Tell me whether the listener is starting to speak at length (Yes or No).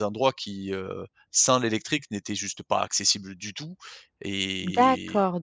Yes